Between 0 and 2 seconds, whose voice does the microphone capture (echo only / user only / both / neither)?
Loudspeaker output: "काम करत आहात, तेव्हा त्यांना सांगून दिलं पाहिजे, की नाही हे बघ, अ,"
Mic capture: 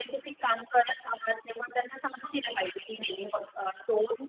echo only